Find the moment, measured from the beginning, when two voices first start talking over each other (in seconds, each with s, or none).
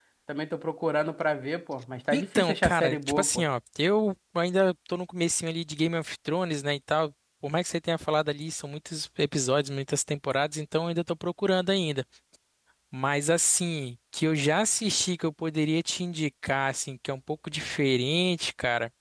2.1 s